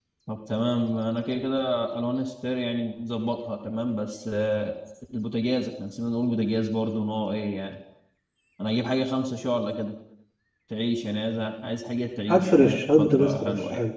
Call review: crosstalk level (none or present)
present